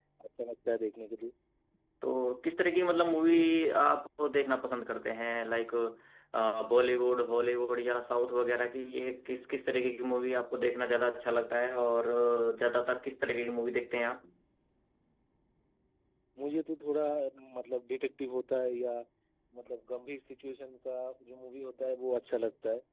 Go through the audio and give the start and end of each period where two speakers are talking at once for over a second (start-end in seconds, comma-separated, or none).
none